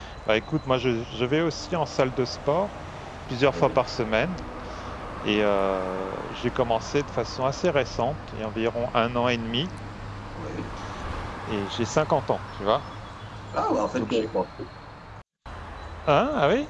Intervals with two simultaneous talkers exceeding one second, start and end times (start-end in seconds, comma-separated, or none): none